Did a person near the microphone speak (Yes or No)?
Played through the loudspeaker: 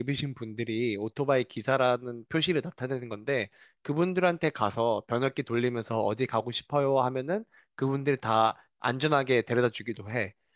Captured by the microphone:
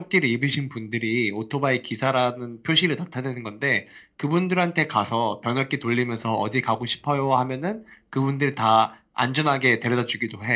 No